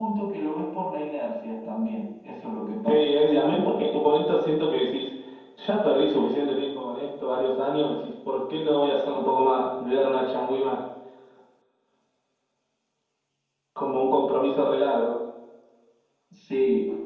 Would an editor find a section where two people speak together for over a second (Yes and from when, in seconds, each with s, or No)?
No